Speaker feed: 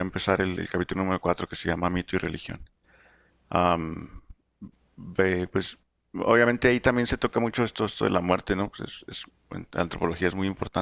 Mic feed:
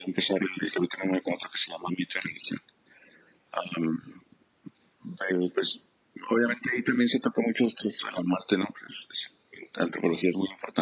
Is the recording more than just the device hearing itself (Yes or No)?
No